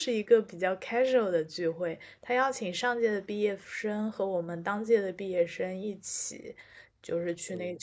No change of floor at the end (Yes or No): Yes